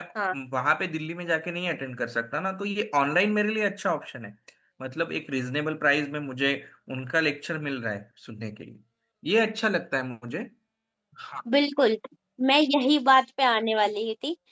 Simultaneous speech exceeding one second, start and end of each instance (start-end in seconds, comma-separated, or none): none